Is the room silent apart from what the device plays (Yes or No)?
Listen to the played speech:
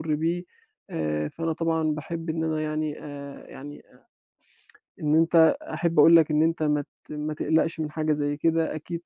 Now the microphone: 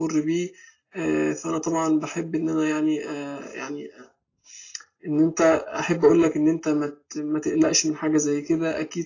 Yes